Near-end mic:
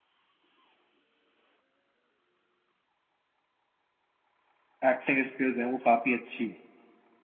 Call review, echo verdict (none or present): none